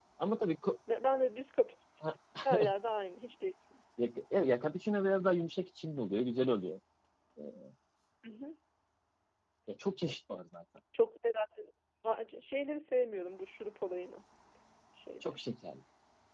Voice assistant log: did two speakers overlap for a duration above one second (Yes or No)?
No